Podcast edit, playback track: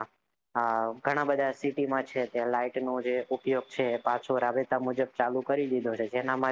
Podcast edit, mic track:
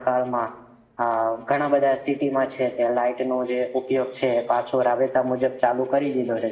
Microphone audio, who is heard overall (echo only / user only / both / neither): echo only